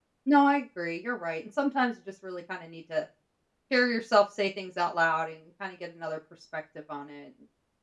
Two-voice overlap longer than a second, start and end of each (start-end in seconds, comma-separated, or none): none